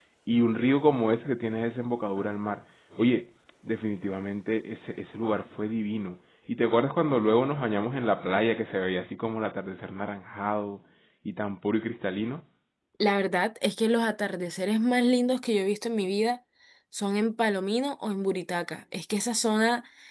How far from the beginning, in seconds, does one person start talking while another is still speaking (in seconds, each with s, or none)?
none